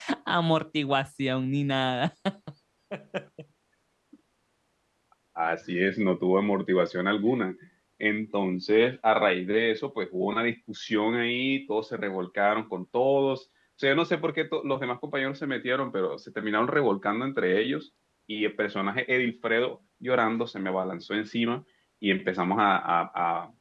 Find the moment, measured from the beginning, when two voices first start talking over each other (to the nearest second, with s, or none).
none